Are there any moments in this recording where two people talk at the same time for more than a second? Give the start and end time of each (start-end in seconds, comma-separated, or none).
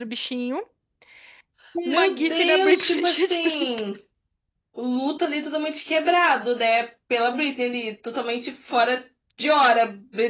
1.9-3.7